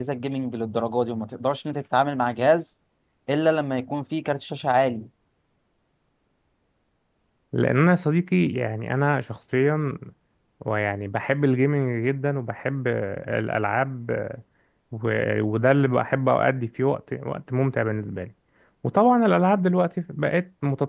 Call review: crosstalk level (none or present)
none